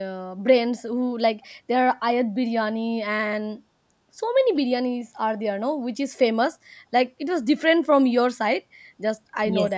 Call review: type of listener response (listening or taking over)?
listening